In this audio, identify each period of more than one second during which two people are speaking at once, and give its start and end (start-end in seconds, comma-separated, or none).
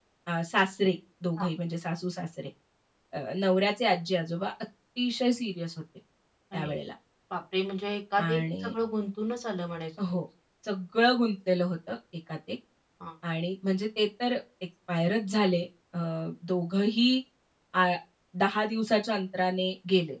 none